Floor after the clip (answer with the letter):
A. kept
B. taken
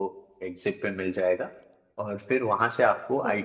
A